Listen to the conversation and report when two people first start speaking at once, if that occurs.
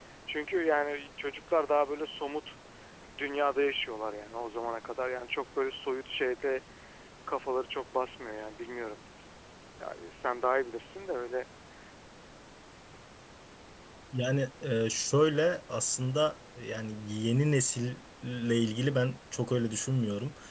none

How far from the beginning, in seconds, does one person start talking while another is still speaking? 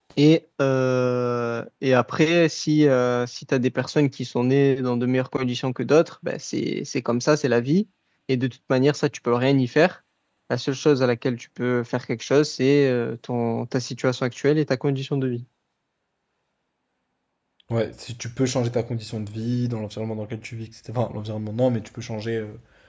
none

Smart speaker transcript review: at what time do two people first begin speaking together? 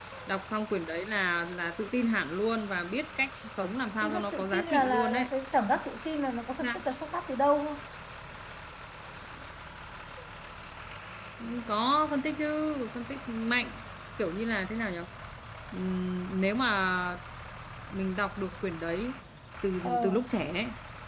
4.0 s

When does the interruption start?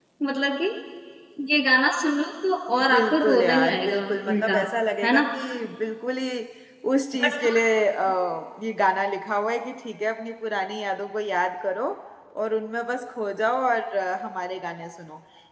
2.9 s

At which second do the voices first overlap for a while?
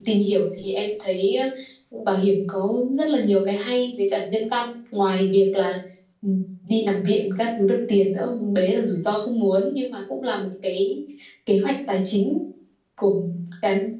none

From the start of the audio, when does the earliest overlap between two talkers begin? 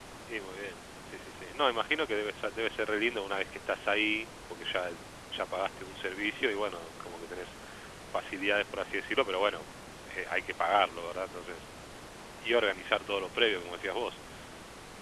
none

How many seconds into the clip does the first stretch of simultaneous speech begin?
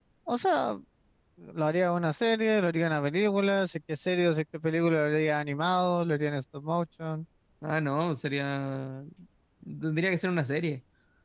none

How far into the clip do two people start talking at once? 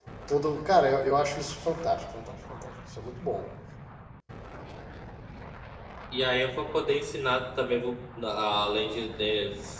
none

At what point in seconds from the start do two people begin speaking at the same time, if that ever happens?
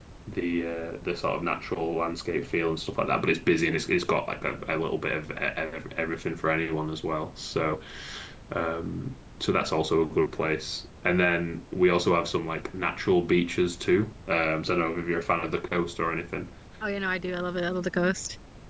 none

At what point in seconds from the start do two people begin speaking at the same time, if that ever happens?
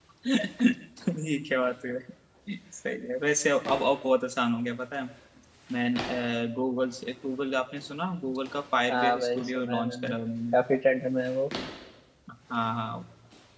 8.9 s

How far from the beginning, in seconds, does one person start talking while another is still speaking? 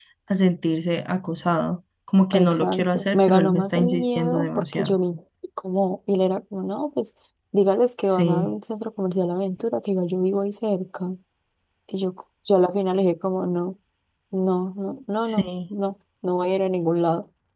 2.3 s

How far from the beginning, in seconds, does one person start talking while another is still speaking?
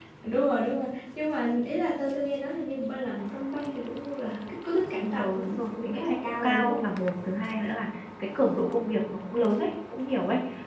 5.2 s

